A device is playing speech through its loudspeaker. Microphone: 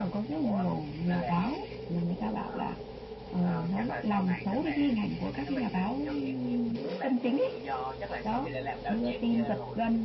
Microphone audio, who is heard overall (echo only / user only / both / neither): echo only